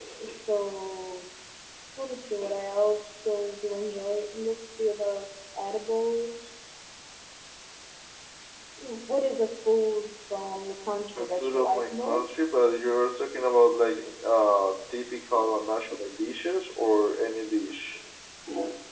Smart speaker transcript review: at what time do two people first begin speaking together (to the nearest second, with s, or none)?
11 s